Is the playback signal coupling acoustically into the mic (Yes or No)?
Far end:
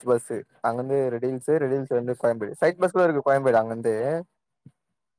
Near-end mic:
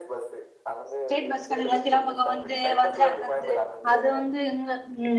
Yes